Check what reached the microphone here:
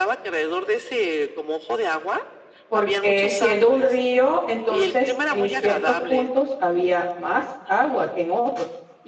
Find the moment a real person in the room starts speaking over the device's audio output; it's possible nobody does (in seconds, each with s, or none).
2.7 s